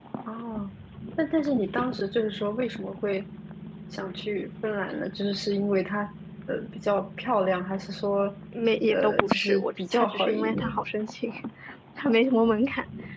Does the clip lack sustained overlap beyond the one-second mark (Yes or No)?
No